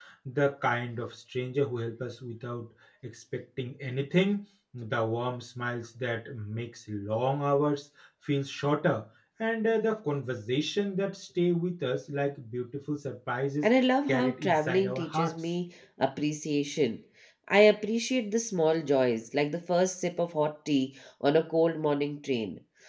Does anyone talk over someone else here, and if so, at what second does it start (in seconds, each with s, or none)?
14.1 s